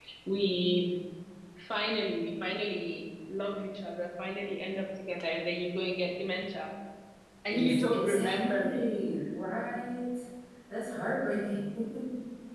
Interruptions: present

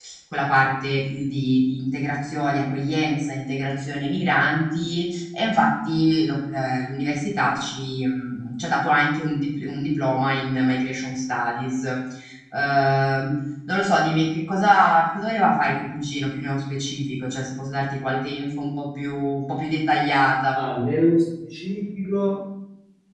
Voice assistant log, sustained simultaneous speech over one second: none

